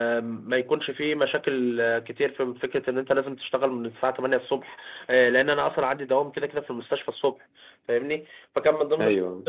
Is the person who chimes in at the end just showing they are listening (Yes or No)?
Yes